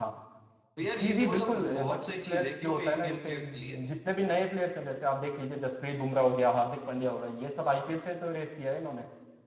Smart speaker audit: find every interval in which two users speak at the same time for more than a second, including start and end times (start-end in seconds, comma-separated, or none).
1.0-3.7